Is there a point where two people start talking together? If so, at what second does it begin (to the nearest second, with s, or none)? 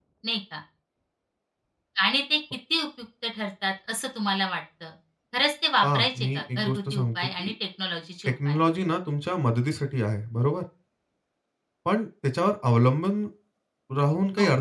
6 s